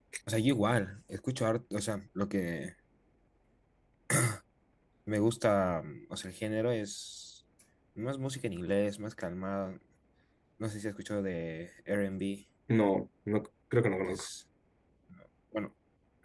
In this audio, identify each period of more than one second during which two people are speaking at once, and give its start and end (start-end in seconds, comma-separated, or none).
none